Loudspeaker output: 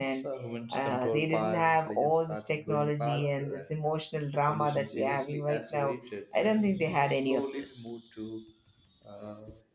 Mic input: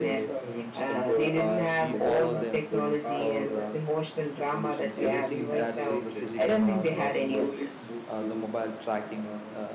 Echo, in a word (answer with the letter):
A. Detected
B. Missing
A